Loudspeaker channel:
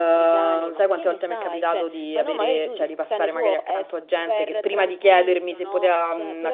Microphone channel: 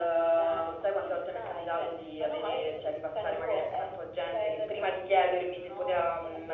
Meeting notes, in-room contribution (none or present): none